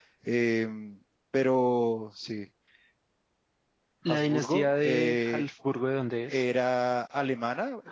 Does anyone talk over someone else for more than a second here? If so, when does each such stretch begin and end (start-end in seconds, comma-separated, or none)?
4.1-5.5